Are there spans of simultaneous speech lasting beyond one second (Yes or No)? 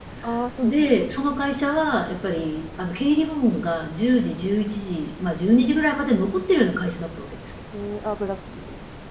No